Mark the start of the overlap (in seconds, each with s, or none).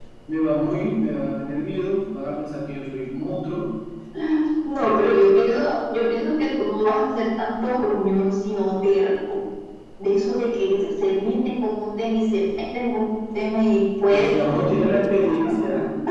14.1 s